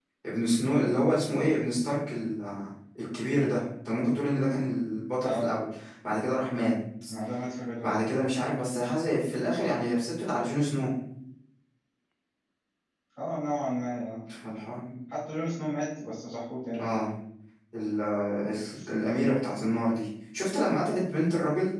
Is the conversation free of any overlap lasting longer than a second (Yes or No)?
Yes